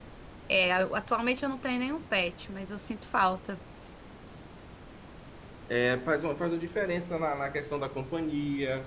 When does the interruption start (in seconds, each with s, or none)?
none